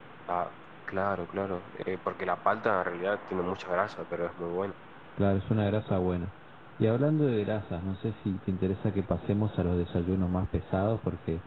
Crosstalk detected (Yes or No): No